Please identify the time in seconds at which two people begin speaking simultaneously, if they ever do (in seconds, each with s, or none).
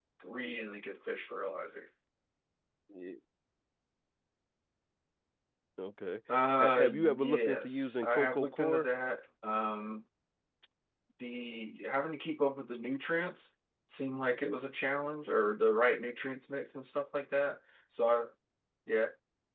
6.6 s